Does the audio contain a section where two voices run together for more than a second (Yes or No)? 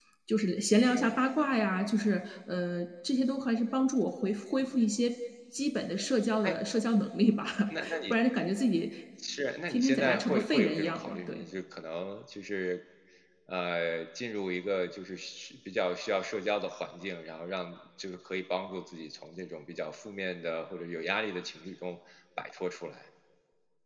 Yes